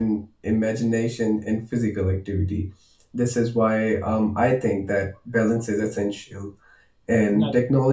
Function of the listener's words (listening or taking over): listening